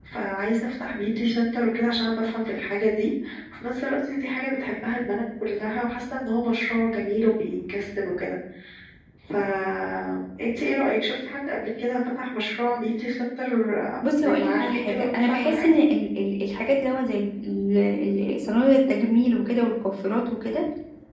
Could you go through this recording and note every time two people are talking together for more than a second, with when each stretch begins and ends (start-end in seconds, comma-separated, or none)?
14.2-15.7